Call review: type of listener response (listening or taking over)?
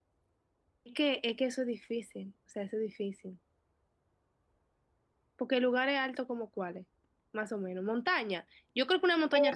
taking over